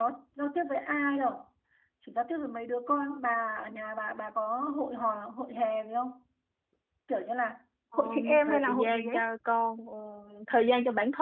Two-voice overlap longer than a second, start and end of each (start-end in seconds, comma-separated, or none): 8.0-9.2